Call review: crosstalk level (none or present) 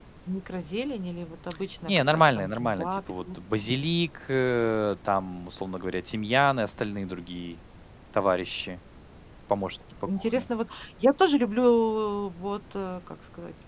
present